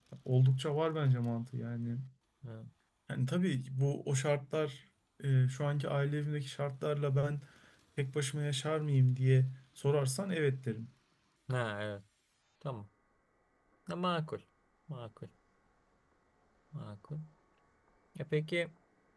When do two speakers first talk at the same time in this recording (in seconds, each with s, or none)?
none